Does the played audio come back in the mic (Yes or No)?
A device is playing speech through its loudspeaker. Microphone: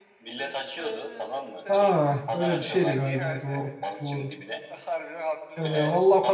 Yes